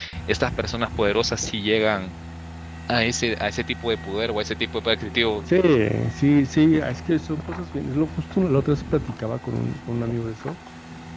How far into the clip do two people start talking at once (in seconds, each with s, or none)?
none